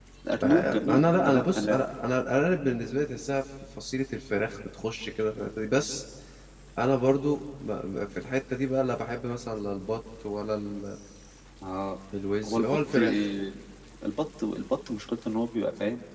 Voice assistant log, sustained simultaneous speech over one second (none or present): present